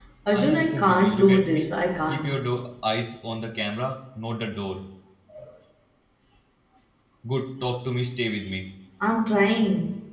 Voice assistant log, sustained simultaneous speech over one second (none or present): present